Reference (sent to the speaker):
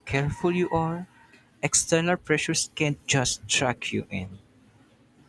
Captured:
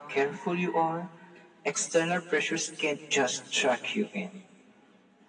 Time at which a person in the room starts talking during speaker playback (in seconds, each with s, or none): none